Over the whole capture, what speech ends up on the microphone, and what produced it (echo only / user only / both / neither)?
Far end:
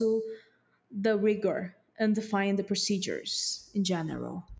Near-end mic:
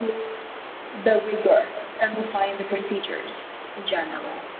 echo only